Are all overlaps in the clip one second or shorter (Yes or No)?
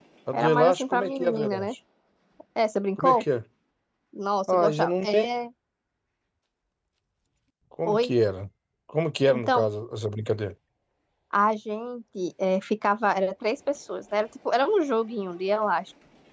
No